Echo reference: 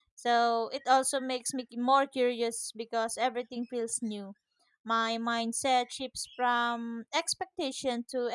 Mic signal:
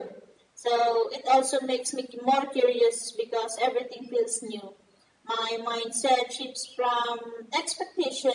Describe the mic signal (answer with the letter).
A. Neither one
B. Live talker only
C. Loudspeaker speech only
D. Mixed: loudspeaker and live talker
C